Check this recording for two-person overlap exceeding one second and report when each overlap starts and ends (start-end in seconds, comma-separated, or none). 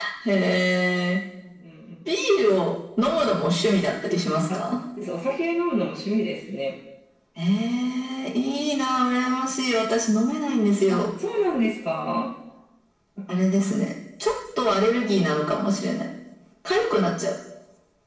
none